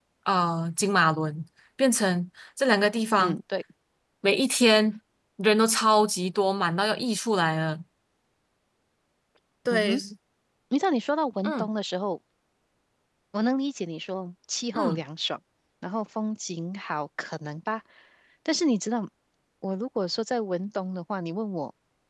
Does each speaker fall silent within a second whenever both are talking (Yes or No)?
Yes